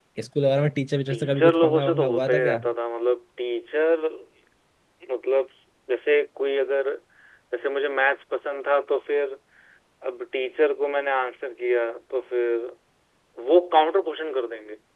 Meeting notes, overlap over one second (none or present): present